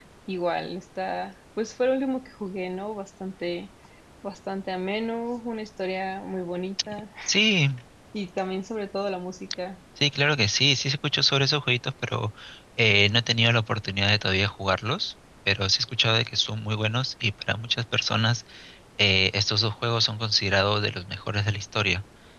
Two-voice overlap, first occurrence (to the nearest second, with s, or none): none